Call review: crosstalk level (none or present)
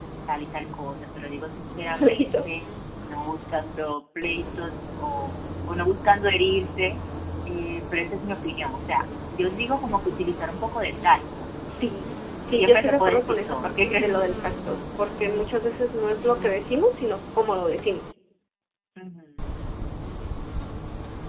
present